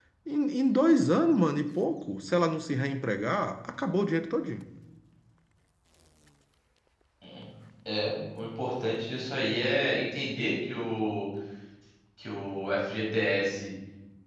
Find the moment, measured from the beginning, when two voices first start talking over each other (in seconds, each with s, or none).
none